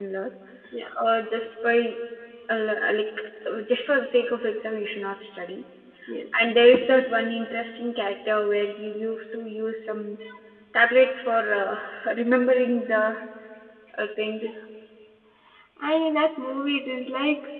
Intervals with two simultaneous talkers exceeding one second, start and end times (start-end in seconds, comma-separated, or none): none